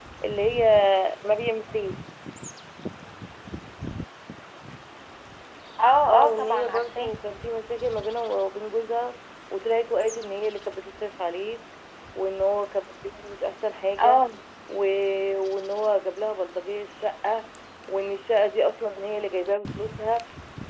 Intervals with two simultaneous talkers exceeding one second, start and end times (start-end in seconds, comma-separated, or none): 6.1-7.3